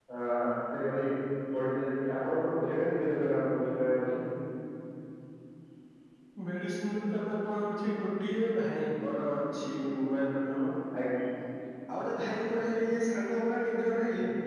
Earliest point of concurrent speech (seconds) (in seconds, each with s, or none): none